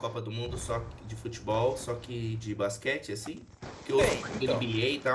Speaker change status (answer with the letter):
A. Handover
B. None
B